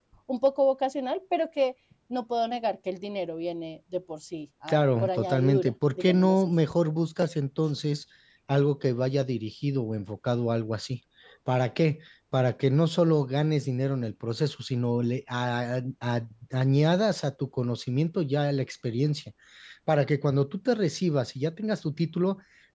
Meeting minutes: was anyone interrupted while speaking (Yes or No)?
Yes